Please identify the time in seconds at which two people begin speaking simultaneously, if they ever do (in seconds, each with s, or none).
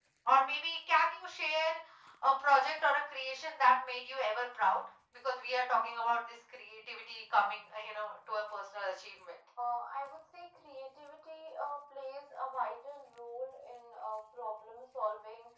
none